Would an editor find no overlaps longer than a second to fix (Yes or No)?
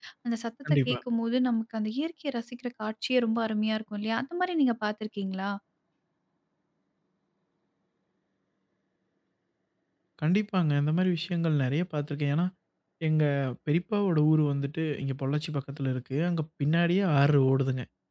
Yes